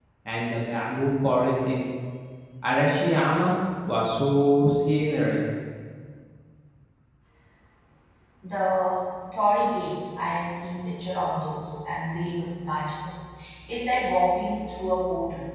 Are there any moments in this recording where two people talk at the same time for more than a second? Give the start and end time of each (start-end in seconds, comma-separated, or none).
none